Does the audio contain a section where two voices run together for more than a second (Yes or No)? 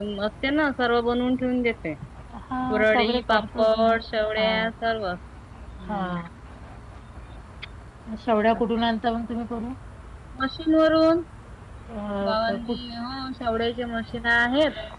Yes